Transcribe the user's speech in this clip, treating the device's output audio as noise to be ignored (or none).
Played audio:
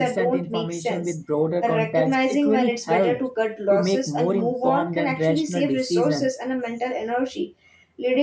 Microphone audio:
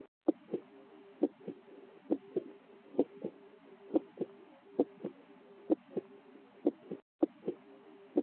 none